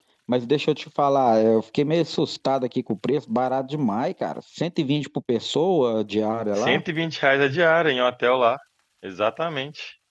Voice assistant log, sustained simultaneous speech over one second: none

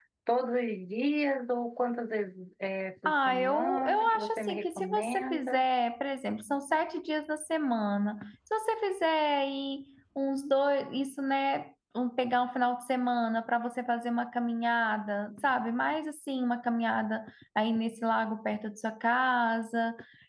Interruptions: present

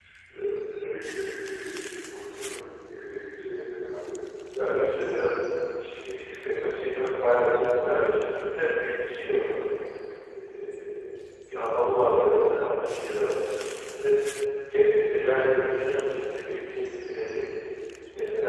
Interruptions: none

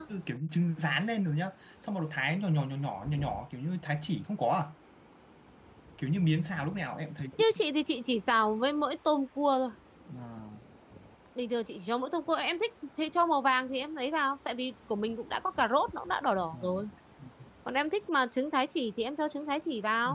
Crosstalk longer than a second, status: none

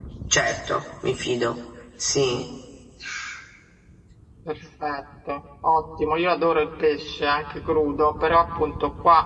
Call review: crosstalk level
none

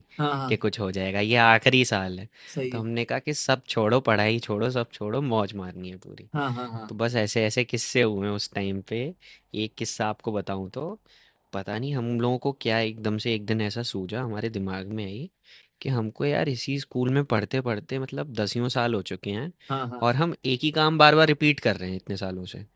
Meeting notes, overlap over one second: none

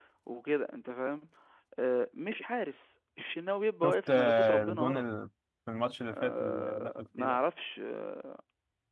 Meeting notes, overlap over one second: present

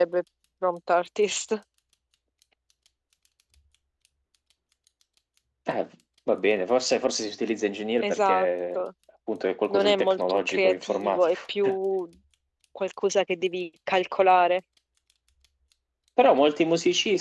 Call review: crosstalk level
present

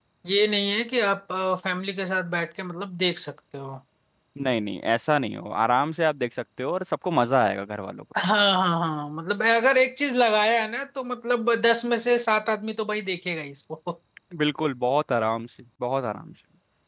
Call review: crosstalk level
none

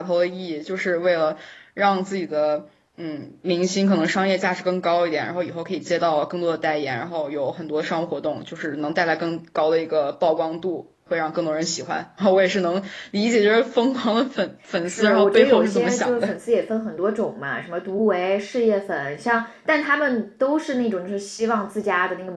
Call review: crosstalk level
present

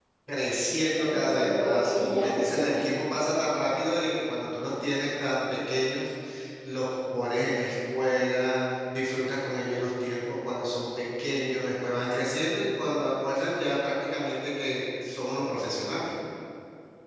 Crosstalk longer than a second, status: present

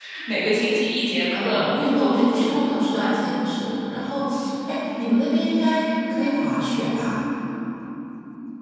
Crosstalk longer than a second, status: present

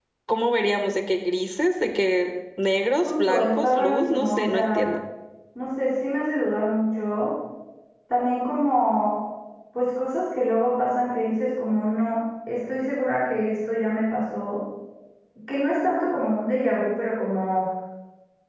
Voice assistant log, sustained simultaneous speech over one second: present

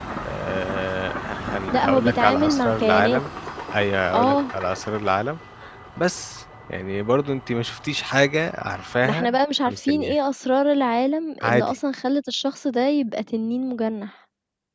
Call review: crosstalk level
present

